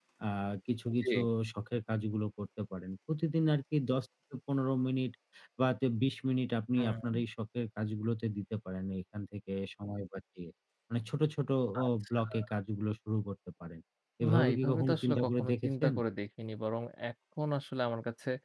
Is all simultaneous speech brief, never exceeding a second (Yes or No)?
No